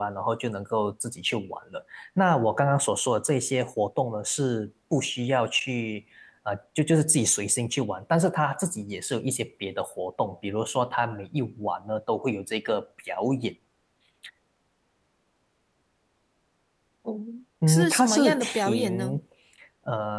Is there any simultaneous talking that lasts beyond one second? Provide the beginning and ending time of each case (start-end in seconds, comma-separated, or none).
17.7-19.2